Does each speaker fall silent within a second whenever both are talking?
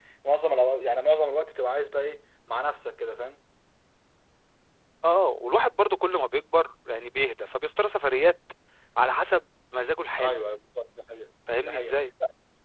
Yes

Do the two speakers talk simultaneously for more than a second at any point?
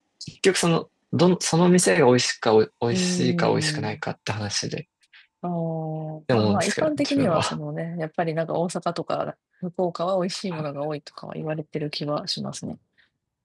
Yes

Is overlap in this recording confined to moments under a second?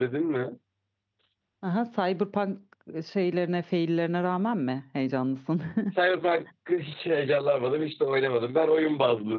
Yes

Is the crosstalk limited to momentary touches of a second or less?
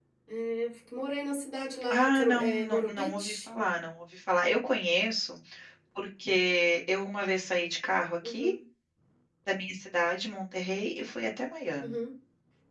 No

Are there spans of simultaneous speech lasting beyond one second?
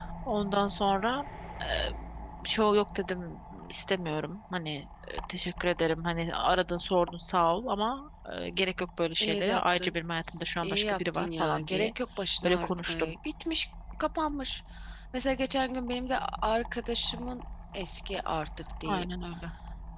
Yes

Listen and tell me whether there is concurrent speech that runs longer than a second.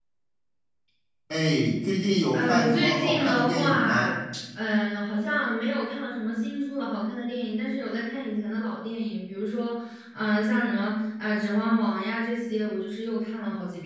Yes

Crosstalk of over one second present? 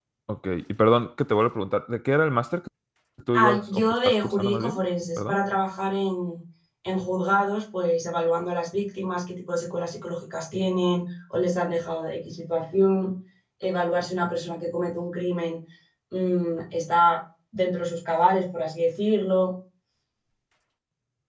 Yes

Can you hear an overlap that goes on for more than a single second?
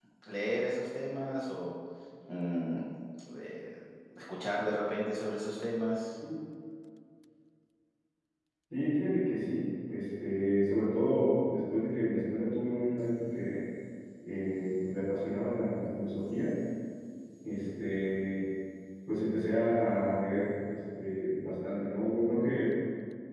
No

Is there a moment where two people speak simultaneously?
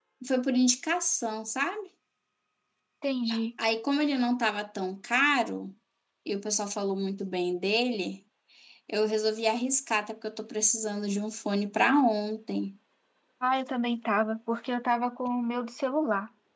No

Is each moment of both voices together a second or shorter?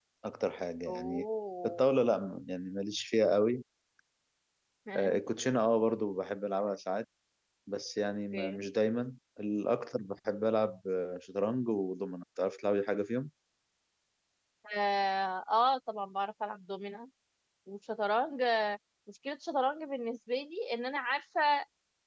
Yes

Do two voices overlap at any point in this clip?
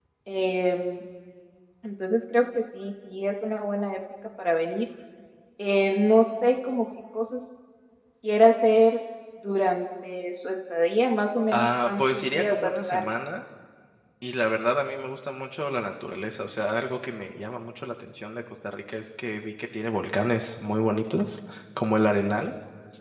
Yes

